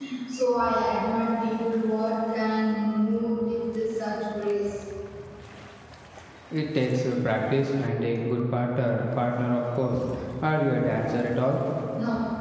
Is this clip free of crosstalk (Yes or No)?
Yes